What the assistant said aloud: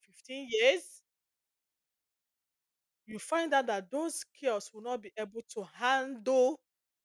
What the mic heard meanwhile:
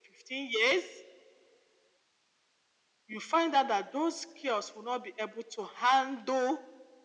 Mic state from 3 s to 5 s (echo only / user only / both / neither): echo only